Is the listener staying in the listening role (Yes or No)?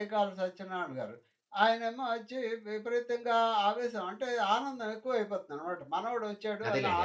Yes